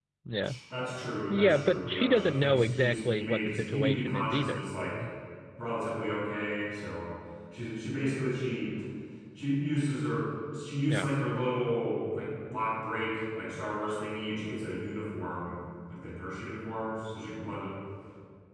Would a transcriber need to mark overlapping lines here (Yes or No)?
Yes